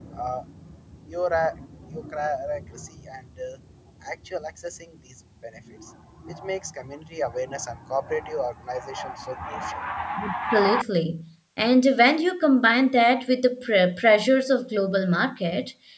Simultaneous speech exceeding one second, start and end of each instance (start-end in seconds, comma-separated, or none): none